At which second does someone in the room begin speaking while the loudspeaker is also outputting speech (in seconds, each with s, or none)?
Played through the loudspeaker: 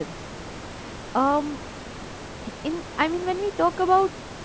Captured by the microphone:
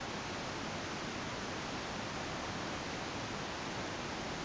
none